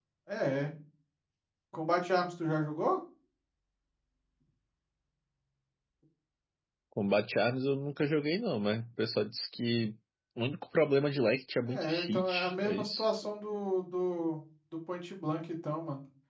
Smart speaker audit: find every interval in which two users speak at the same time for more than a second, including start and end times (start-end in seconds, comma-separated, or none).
11.7-13.1